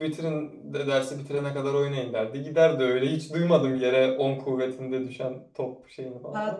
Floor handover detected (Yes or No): Yes